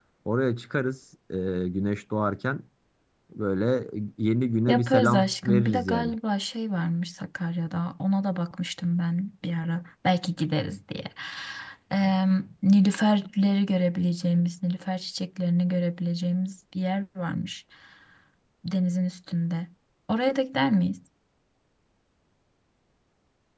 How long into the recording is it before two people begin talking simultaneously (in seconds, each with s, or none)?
4.7 s